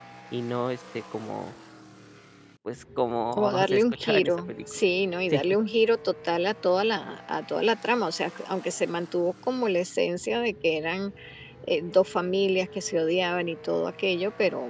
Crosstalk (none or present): present